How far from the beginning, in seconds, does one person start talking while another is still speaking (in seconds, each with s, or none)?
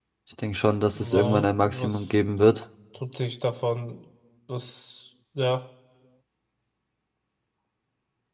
1.0 s